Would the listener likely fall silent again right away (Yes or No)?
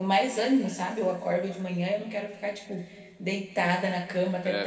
Yes